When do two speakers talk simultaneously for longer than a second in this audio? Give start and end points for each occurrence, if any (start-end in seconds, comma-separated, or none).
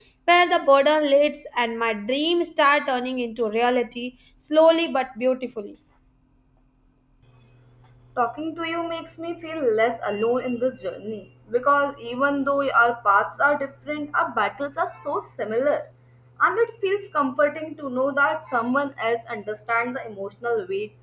none